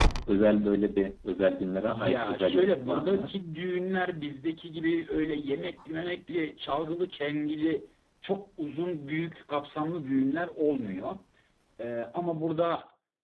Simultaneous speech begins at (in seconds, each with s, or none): 1.9 s